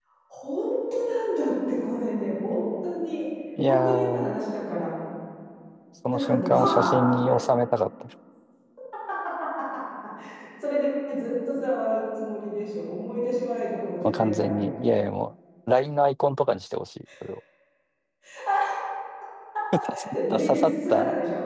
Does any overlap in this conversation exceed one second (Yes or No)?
Yes